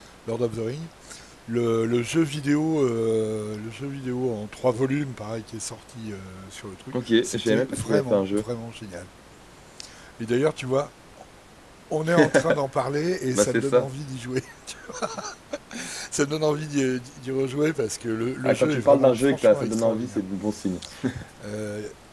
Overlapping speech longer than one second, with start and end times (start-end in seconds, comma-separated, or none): 7.2-8.4, 18.4-20.2